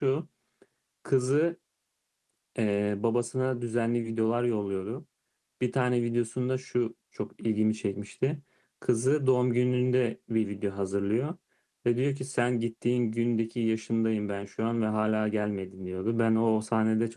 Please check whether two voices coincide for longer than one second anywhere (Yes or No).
No